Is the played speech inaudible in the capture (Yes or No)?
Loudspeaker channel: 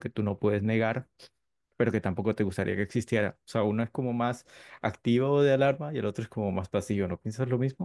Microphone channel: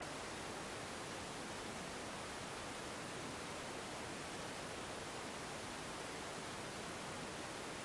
Yes